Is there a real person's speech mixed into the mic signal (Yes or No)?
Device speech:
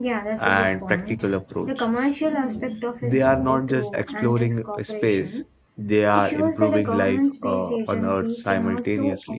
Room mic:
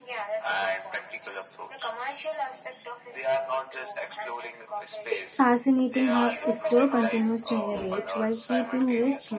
Yes